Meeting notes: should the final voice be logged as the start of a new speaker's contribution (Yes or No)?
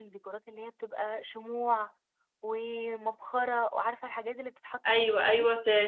Yes